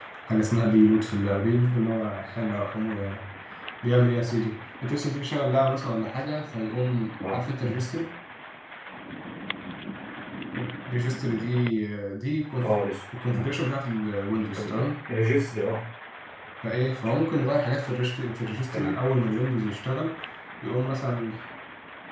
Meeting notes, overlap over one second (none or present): none